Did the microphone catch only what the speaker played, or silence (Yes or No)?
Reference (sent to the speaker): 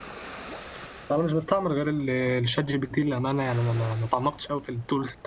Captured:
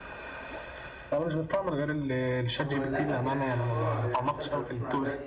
No